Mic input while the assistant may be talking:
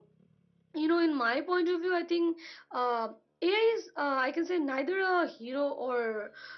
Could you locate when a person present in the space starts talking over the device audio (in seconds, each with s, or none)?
none